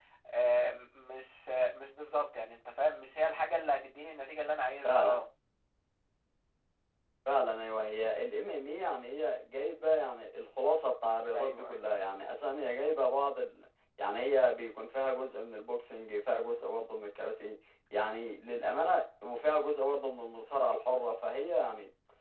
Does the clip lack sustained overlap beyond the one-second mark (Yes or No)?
Yes